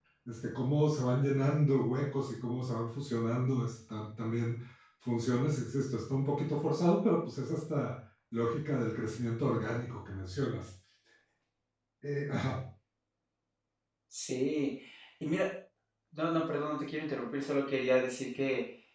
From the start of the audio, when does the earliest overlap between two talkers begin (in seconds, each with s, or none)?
none